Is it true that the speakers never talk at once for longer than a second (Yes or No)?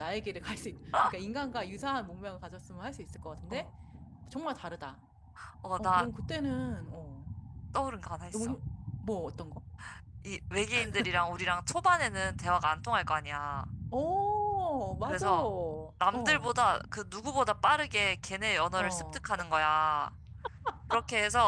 Yes